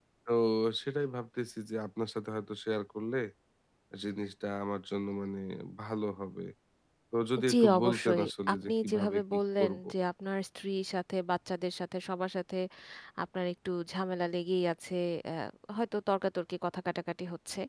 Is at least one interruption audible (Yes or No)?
Yes